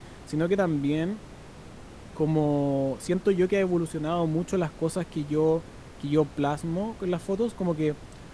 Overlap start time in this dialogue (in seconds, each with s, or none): none